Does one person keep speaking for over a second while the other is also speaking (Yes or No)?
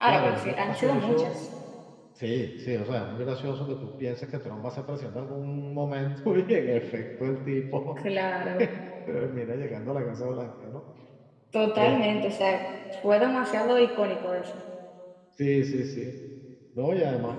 Yes